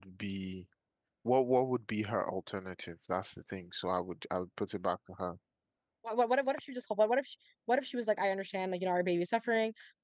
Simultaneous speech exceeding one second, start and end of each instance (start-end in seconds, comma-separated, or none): none